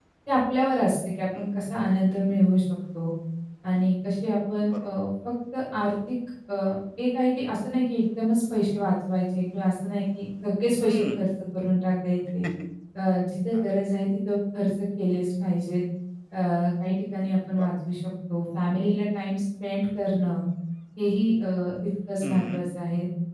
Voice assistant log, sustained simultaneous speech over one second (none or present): none